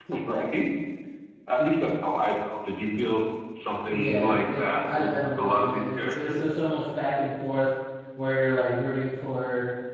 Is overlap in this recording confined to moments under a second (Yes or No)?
No